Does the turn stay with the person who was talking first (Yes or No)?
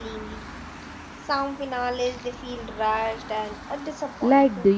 No